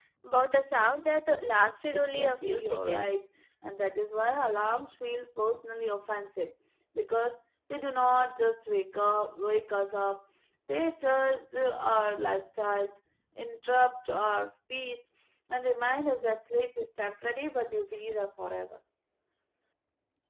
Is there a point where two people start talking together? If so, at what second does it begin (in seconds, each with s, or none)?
1.9 s